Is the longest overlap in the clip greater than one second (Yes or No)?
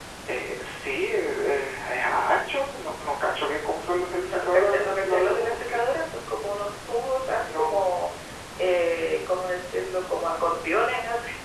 Yes